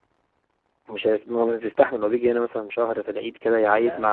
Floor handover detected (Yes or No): No